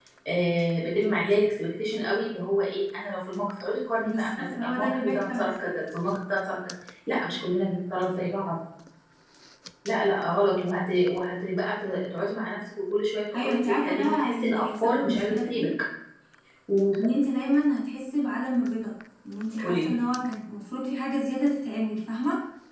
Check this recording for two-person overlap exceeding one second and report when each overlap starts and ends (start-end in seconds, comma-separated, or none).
4.0-5.7, 13.4-15.7